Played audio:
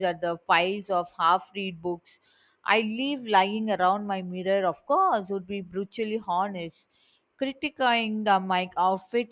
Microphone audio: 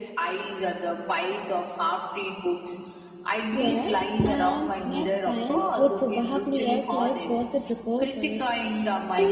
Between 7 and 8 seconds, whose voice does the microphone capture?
both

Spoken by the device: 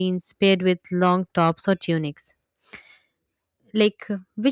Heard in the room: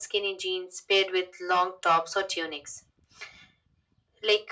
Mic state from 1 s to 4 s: echo only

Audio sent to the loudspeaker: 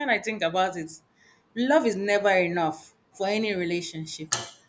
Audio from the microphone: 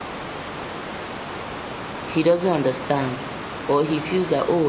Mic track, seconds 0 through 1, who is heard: neither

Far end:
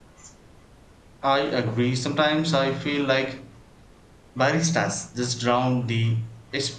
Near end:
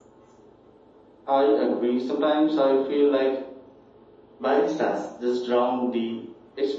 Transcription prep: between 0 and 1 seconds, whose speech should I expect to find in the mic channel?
neither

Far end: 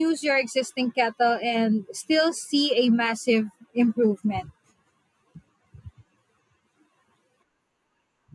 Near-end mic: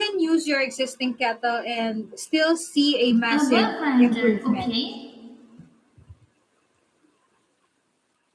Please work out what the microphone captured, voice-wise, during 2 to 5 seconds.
both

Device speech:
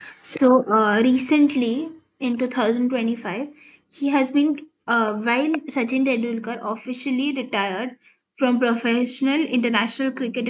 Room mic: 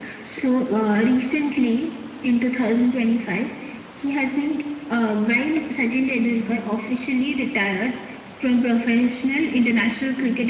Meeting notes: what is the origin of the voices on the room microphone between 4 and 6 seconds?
echo only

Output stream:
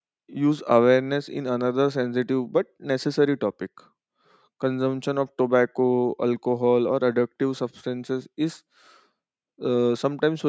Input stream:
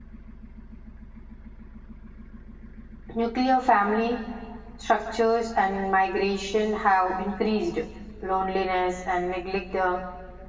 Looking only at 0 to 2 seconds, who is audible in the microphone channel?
neither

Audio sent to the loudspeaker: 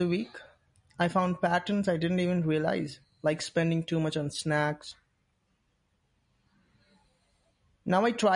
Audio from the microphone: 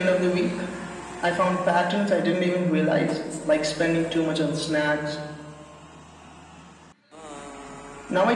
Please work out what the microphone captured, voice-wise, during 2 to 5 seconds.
echo only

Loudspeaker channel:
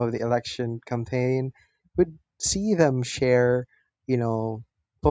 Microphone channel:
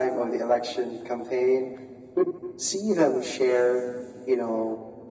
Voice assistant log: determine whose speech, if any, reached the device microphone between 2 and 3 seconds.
echo only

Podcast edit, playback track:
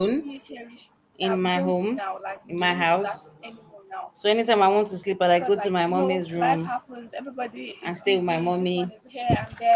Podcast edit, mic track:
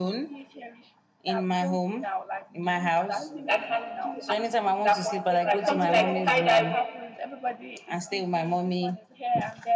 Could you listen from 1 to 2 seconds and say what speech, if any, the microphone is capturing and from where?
echo only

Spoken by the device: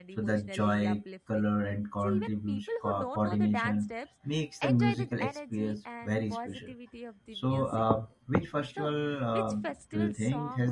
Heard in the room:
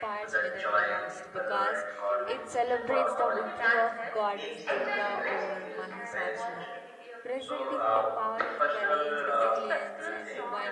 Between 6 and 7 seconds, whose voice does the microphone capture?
both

